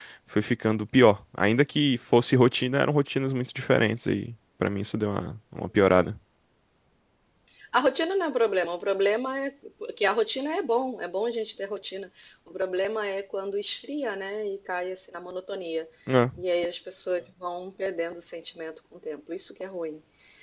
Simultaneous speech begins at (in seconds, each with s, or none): none